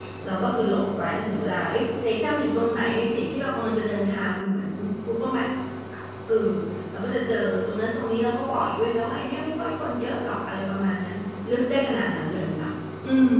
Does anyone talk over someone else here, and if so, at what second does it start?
none

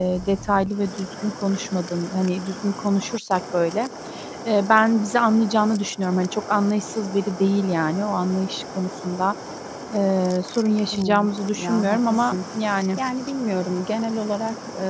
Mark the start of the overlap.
11 s

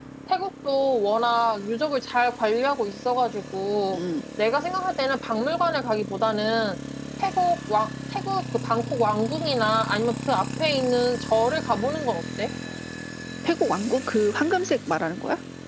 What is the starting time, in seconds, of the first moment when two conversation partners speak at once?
none

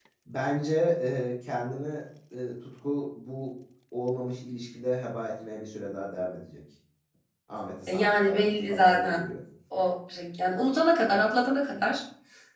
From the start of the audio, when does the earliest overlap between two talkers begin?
8 s

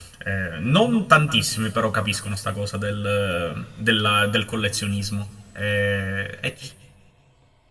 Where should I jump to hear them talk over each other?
none

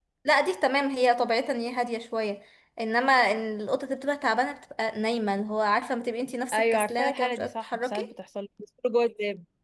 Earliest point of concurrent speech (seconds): 7 s

